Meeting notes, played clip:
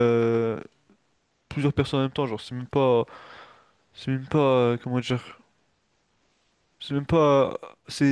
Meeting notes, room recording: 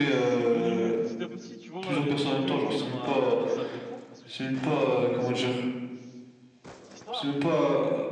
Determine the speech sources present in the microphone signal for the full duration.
both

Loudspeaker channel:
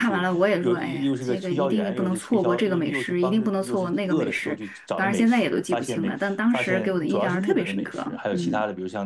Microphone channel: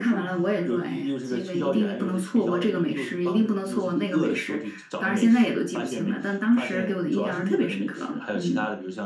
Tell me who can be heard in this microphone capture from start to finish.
echo only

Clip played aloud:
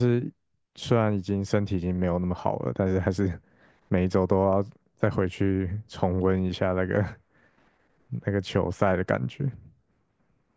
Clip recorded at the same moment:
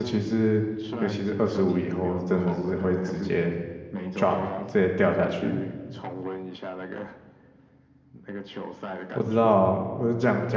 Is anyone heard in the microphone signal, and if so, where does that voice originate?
both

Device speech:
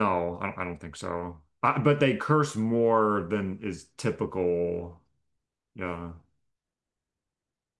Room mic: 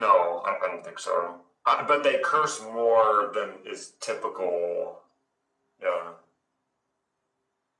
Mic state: echo only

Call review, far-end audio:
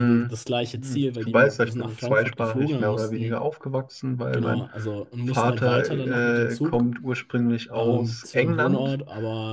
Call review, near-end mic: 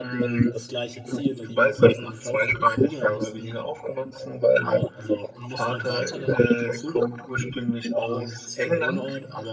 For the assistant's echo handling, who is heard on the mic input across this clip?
echo only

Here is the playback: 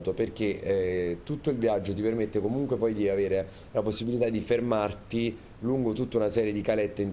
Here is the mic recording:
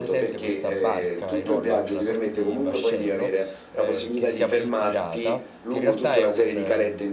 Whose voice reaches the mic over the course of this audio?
both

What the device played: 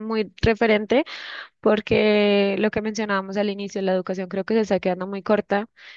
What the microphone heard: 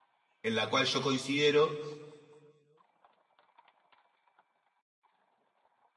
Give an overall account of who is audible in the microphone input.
user only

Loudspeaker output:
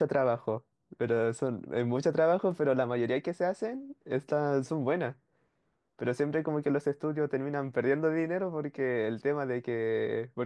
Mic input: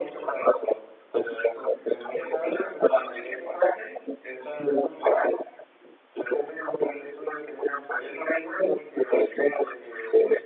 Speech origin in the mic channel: echo only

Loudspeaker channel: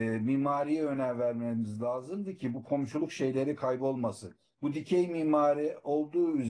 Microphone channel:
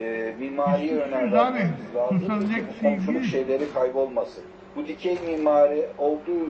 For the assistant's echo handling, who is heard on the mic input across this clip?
both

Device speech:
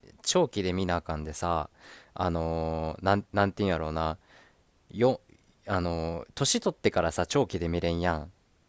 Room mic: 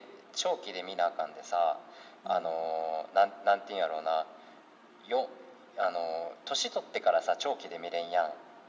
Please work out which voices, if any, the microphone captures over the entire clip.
both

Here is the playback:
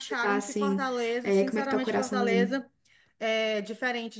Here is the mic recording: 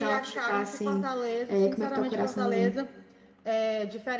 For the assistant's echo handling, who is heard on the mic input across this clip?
echo only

